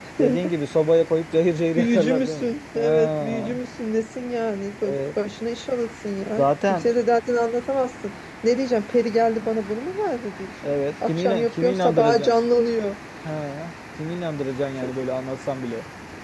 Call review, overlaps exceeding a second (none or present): present